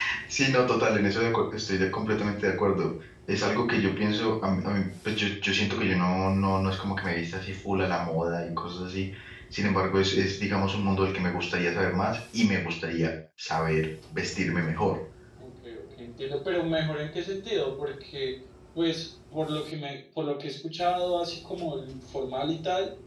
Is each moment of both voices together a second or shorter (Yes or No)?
Yes